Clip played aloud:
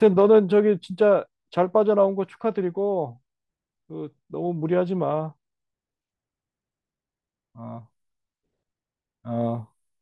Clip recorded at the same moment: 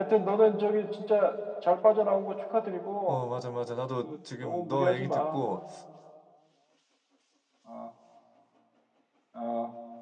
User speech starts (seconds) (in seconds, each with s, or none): 3.0 s